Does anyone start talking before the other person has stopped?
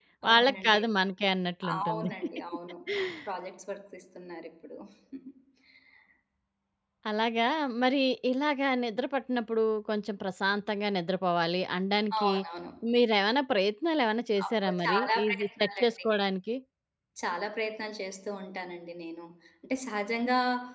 Yes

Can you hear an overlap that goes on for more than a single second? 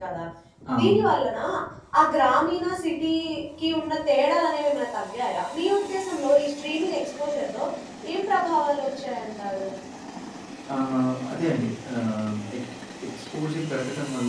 No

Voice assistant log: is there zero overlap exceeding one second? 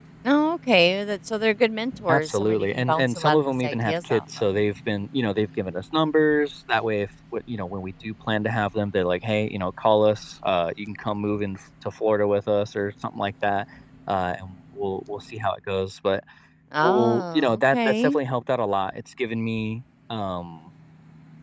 No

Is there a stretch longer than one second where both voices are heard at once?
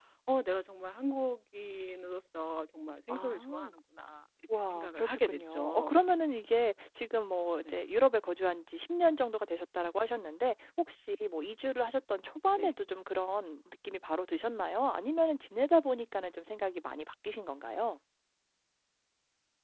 Yes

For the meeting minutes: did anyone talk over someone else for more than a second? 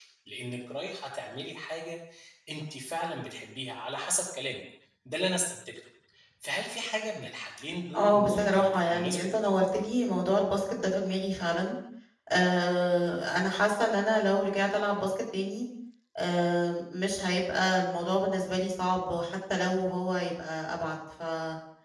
Yes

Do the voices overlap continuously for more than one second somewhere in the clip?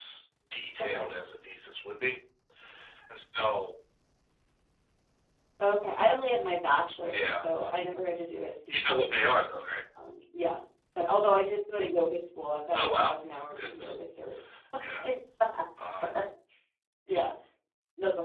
No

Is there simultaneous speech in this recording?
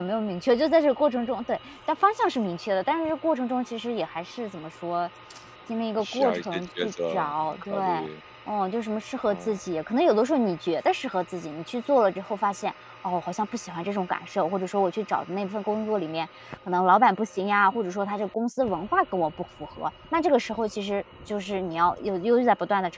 Yes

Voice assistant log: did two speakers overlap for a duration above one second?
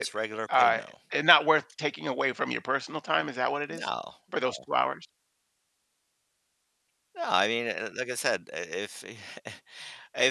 No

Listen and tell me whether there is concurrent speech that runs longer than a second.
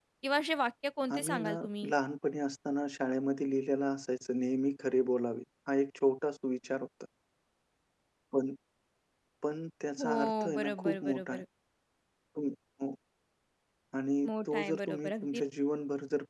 Yes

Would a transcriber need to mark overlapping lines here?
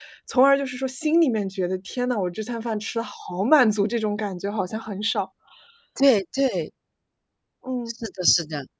No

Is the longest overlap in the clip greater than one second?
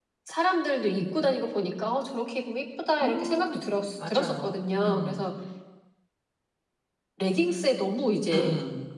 Yes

